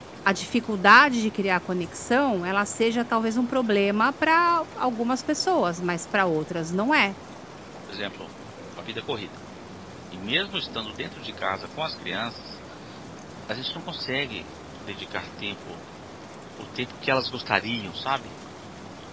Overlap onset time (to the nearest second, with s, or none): none